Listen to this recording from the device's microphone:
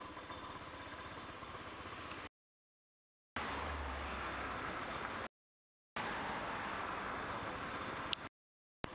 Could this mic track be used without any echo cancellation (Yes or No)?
Yes